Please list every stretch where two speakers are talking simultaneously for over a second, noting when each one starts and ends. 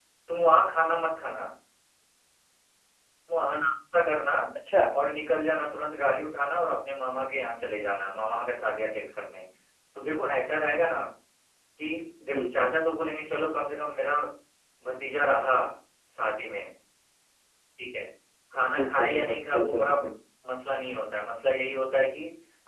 18.8-20.1

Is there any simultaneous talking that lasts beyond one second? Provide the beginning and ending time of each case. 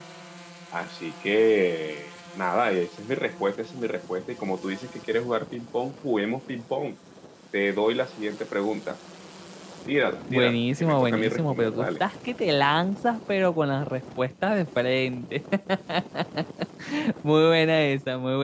10.3-12.0

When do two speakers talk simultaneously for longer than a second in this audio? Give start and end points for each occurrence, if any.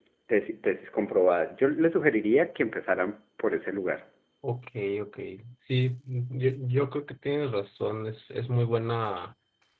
none

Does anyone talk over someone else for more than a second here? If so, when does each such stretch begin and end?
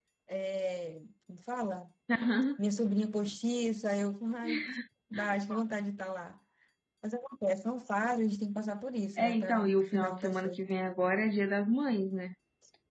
9.2-10.6

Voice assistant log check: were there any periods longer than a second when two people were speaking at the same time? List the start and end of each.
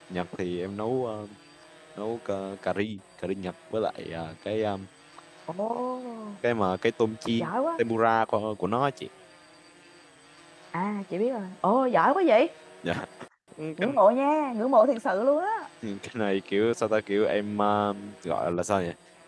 none

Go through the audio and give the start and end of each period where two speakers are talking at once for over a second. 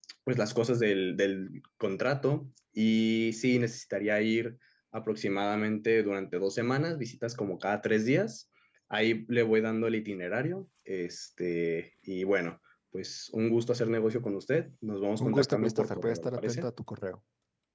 15.2-16.7

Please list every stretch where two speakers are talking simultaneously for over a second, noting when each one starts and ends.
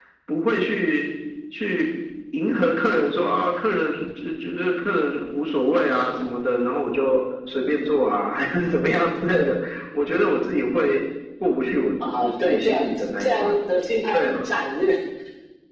12.2-13.6

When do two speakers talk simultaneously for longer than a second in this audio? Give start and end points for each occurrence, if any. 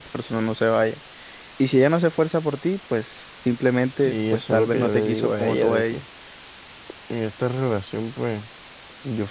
4.0-6.0

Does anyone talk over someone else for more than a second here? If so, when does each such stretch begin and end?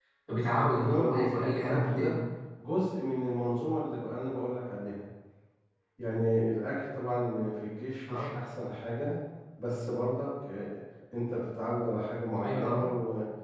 0.6-2.1

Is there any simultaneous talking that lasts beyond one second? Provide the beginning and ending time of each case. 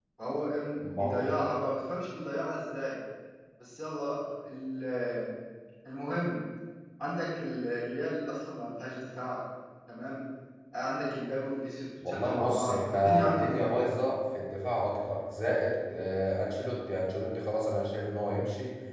12.1-13.8

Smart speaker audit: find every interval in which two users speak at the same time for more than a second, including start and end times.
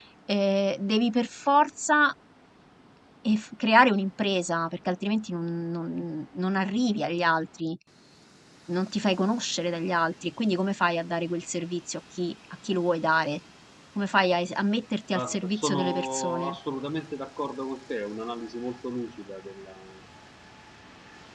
15.1-16.6

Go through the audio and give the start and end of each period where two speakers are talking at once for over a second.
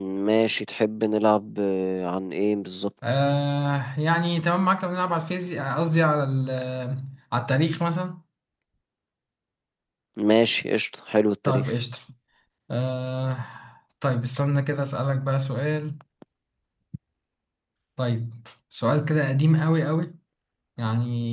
none

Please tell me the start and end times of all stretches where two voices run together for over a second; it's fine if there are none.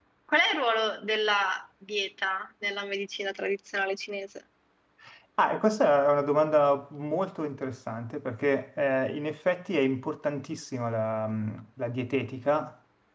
none

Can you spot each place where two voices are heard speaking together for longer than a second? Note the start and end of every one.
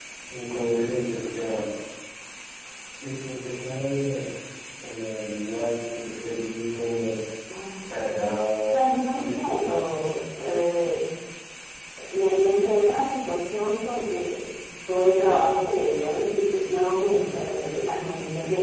8.7-9.9

